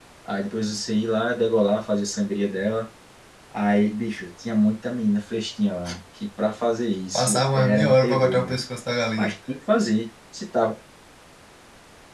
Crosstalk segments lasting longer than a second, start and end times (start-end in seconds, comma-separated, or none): 7.1-8.6